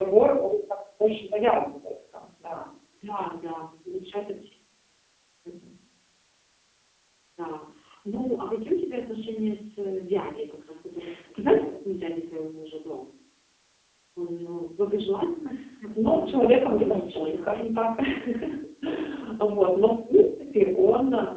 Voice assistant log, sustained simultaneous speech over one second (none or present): present